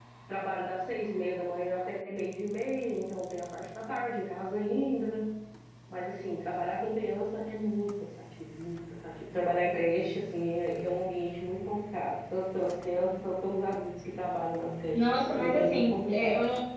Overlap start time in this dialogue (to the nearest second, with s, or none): 15 s